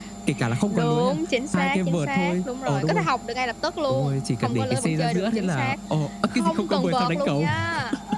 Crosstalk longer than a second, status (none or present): present